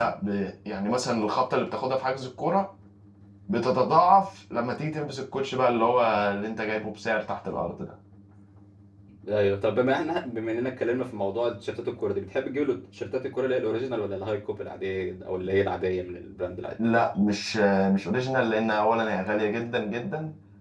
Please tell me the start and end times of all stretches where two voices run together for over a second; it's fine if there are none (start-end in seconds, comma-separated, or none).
none